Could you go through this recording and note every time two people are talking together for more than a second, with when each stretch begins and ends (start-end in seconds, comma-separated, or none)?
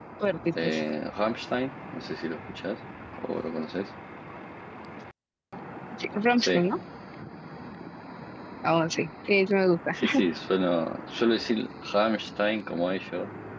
none